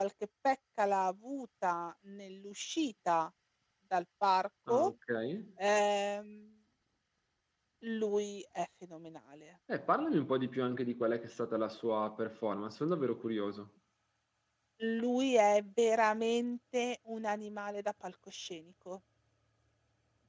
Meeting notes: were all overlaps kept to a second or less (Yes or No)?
Yes